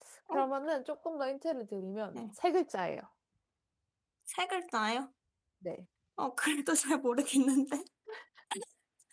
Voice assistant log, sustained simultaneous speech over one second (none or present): none